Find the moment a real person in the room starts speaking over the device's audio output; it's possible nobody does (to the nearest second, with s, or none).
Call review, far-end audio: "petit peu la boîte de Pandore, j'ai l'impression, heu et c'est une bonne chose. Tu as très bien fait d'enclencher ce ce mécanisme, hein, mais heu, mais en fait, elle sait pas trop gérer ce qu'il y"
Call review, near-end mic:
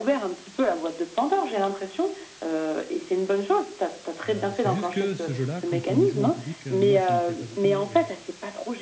4 s